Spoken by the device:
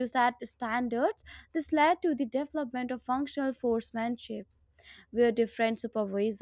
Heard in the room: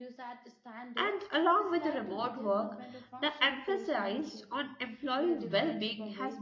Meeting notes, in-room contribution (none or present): present